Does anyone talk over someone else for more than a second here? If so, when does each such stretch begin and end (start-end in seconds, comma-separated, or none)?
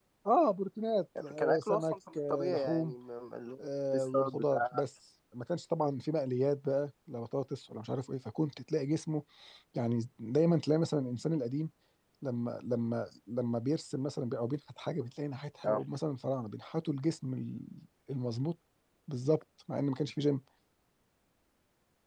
1.4-3.0, 3.6-4.8